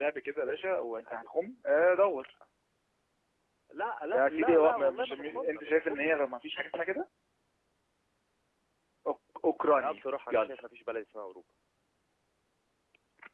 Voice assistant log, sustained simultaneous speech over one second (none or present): present